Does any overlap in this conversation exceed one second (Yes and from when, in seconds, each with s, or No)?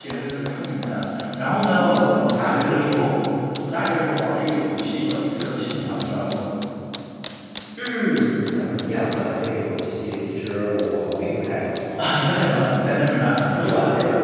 Yes, from 1.7 s